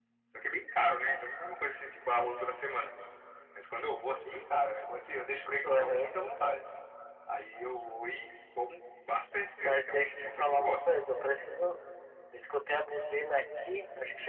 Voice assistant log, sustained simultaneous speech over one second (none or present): present